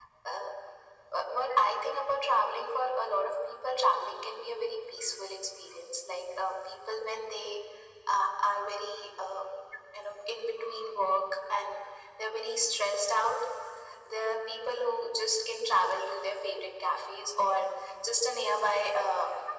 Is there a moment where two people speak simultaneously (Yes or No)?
No